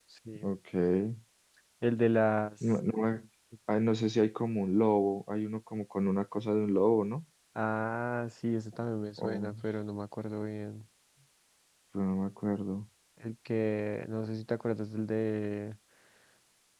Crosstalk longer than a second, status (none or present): none